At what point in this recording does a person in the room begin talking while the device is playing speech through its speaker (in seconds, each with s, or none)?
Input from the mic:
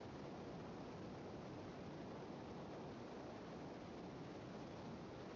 none